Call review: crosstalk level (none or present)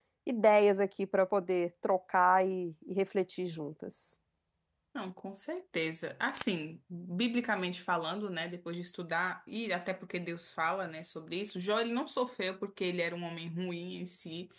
none